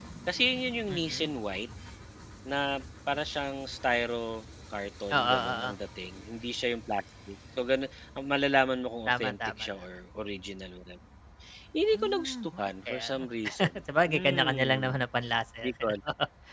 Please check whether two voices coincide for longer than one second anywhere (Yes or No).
Yes